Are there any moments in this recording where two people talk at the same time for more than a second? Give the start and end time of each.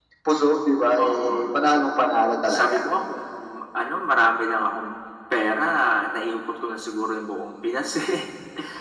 none

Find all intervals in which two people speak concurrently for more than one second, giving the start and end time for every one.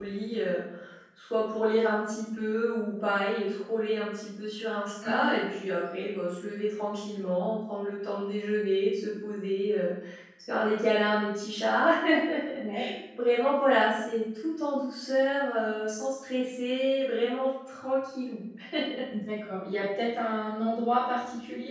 none

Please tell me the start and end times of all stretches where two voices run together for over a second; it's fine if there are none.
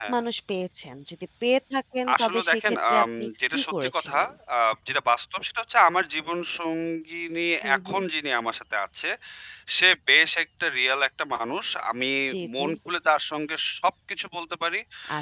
2.1-4.2

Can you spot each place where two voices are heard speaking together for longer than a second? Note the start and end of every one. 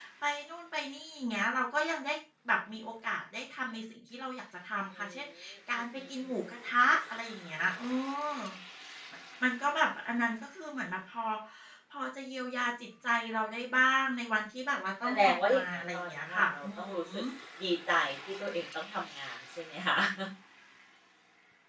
15.0-16.9

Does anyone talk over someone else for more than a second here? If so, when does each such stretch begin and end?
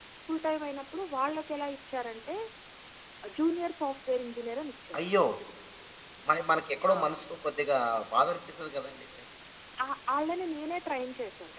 none

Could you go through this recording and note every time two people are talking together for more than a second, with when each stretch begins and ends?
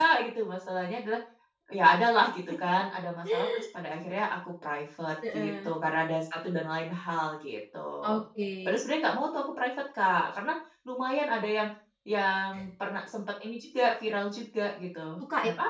none

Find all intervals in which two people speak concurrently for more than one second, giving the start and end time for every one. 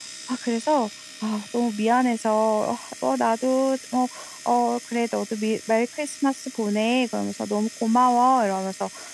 none

